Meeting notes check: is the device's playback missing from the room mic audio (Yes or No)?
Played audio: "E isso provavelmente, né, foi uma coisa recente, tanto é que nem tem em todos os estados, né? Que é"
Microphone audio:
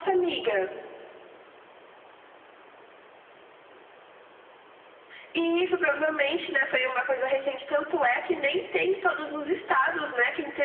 No